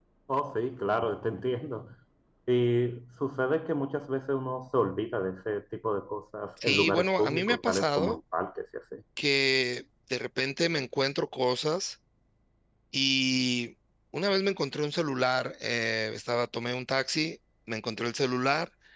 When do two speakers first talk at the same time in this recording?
6.6 s

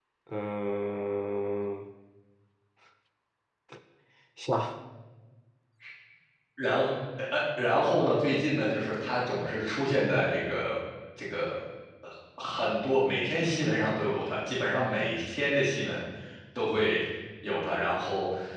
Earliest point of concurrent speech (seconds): none

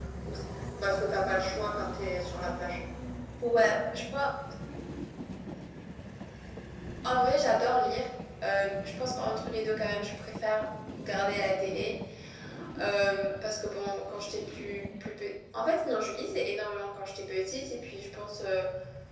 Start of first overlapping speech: none

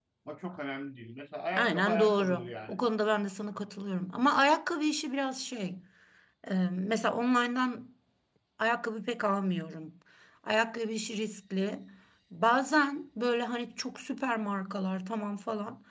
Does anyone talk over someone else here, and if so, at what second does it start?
1.5 s

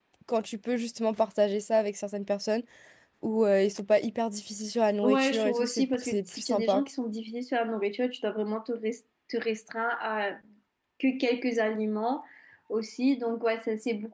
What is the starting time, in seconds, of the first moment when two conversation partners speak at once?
5.0 s

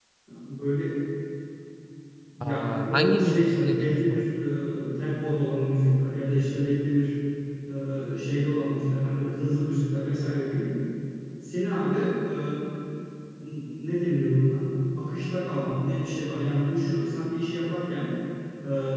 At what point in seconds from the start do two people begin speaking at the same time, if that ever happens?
2.4 s

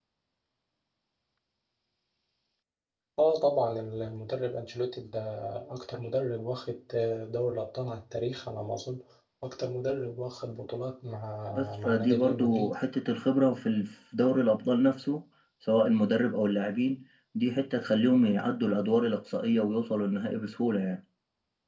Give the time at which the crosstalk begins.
11.5 s

